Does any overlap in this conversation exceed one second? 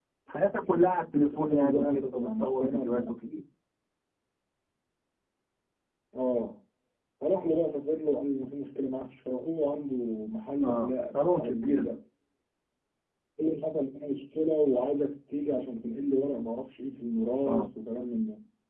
Yes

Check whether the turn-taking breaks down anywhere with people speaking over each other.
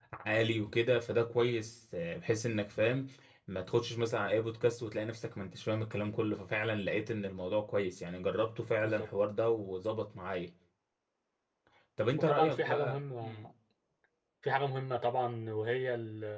Yes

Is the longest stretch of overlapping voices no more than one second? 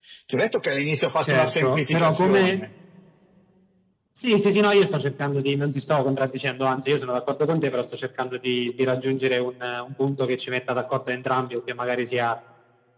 No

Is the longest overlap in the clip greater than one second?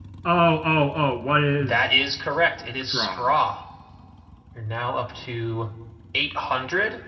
No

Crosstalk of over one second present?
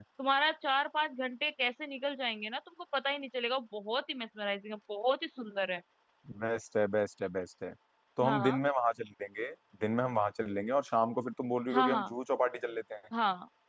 No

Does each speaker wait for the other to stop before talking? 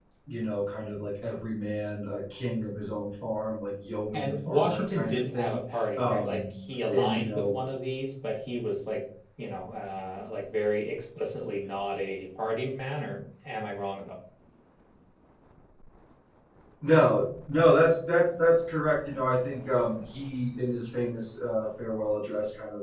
No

